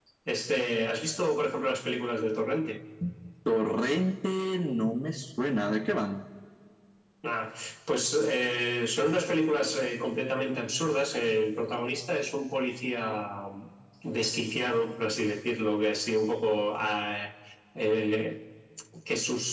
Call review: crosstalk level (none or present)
none